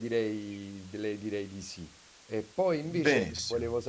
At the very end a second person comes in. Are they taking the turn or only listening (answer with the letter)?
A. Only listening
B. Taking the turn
A